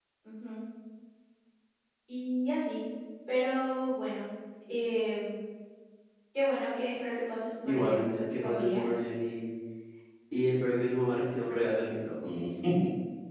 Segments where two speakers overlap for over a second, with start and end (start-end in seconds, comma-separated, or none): 7.6-8.8